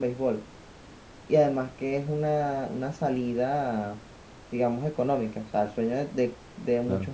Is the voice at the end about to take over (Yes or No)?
No